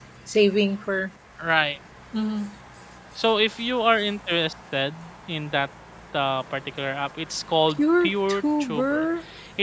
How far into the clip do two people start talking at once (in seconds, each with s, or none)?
7.8 s